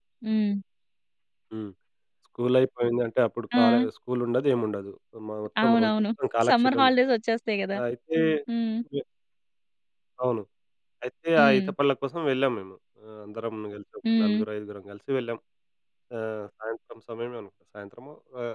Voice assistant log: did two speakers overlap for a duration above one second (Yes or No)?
No